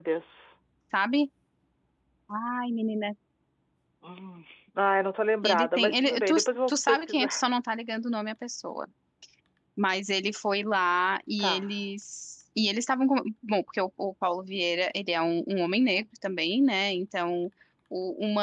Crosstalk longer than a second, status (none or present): present